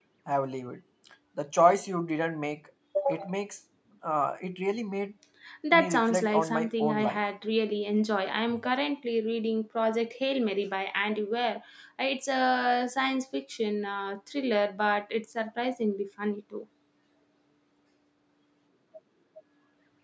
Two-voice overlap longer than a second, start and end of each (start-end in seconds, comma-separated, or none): 5.7-7.2